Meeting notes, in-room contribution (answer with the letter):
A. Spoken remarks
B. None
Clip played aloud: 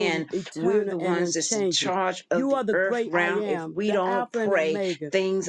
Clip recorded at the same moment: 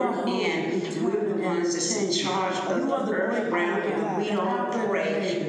A